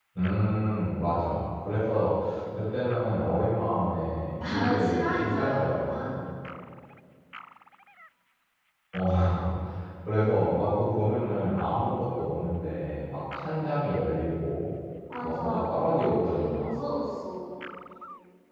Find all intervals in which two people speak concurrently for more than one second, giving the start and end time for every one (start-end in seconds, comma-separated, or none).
4.4-6.1, 15.2-16.8